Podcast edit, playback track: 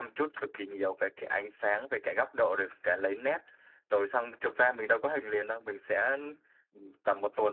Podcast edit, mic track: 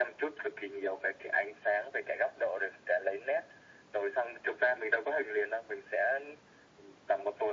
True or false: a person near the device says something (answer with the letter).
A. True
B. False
B